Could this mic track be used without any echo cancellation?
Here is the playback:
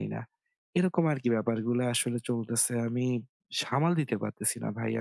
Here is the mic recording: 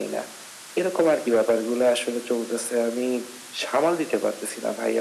No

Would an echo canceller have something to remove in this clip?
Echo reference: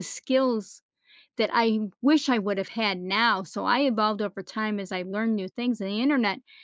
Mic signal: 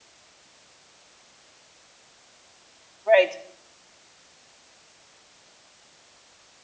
No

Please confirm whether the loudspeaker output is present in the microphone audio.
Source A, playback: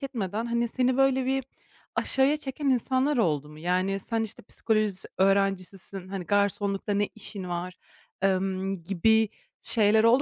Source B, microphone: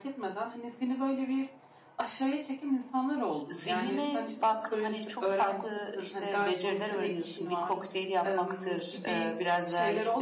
Yes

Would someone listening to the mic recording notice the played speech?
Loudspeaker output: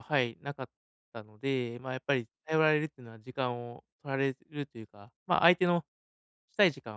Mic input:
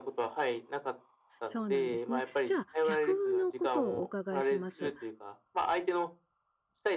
Yes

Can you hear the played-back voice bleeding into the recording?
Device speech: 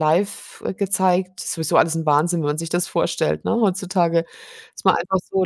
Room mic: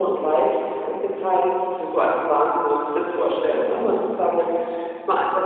Yes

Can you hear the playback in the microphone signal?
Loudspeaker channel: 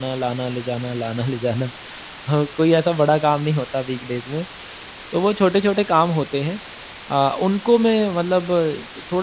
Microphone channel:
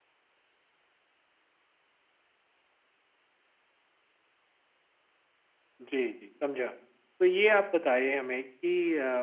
No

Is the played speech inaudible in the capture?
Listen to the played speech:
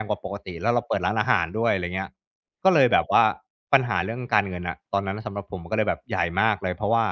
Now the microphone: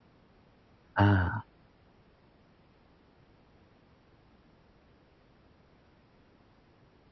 Yes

